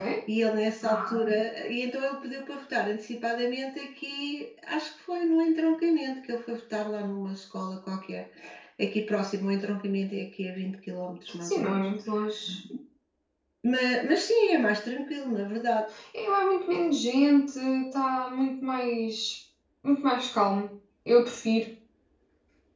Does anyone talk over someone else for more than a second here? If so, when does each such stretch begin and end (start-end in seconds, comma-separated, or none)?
none